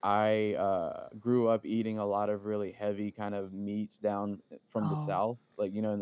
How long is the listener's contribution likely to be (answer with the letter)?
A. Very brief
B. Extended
A